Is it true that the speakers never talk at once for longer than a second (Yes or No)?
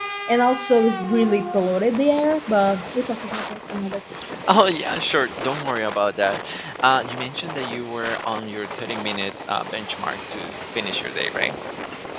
Yes